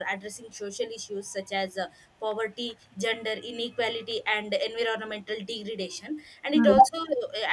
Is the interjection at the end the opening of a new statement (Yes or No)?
No